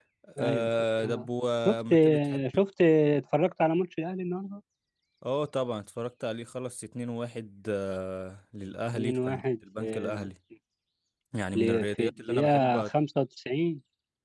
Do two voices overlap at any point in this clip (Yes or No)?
Yes